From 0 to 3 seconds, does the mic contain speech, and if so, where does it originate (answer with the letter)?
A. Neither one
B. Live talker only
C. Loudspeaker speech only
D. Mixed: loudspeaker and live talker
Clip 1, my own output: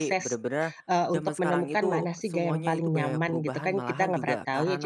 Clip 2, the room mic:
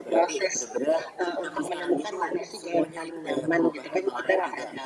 C